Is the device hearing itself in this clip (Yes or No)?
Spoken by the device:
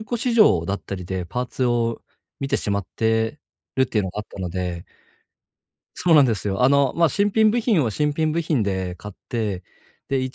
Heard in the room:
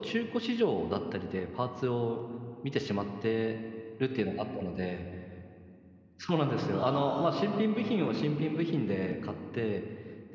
Yes